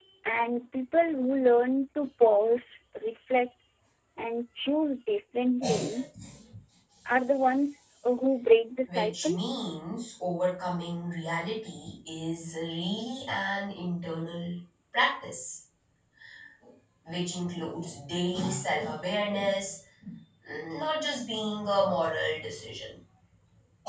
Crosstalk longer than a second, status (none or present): none